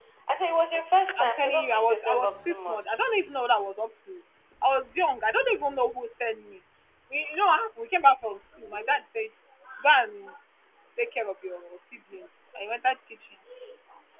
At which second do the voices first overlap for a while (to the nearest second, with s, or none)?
1 s